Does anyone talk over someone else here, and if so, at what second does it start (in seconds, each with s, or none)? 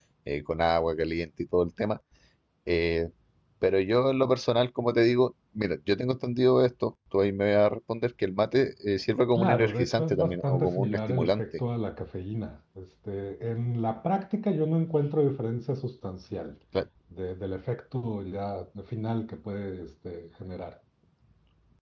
9.3 s